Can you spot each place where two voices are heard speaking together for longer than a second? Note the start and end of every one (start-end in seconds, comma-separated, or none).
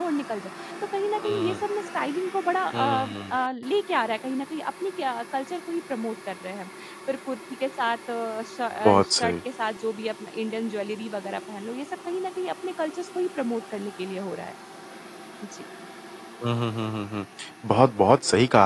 none